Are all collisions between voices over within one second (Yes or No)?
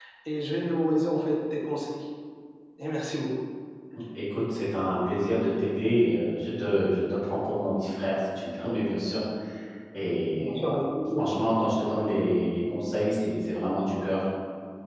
Yes